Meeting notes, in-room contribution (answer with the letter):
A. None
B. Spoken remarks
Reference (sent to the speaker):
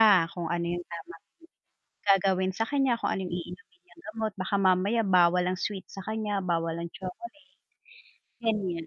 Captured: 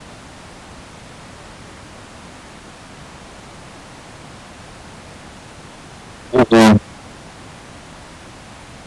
B